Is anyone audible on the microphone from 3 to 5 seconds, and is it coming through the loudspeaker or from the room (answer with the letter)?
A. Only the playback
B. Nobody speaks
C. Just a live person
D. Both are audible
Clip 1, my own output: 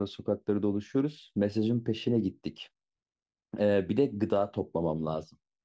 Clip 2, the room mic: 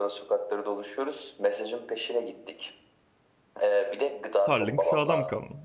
D